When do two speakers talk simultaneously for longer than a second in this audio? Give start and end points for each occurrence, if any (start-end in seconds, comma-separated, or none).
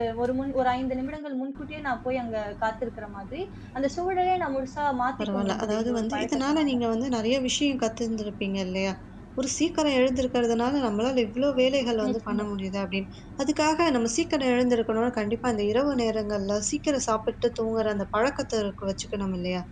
5.2-6.7